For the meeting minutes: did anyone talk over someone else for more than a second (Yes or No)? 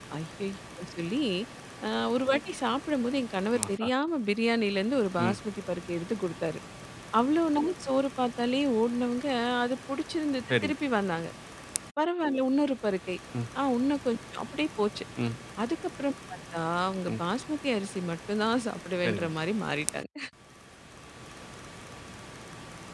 No